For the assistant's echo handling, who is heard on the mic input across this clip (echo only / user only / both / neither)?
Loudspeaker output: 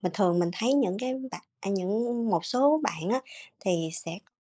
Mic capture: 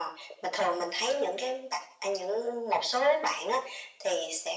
echo only